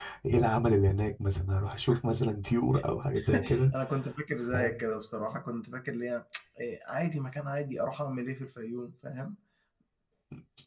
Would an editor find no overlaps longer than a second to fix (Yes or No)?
Yes